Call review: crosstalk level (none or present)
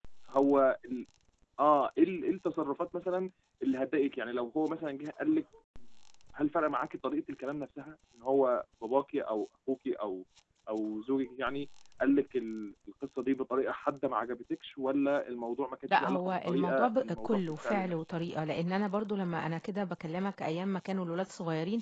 present